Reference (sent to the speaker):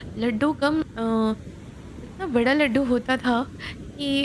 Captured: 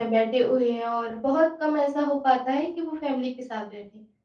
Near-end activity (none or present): present